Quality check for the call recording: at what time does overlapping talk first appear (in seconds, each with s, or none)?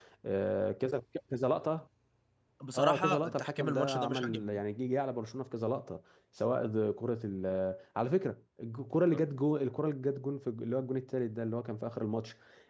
2.8 s